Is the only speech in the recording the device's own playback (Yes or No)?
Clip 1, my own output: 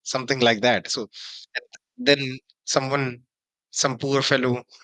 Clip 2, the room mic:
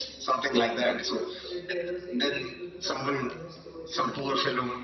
No